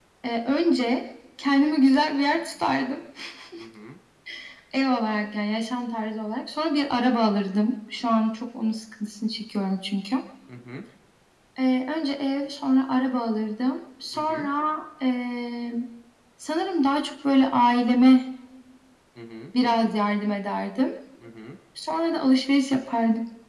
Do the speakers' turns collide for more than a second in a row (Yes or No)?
No